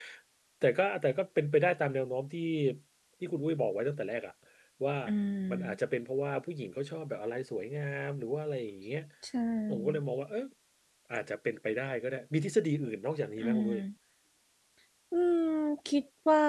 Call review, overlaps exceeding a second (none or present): none